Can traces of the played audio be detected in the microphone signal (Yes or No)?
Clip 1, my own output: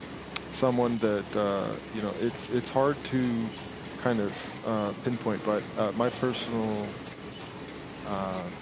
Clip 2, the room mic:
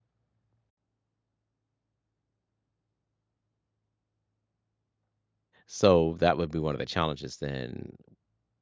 No